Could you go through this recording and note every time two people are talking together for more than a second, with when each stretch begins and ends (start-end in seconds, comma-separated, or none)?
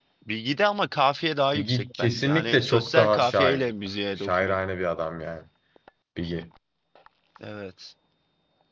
1.5-3.7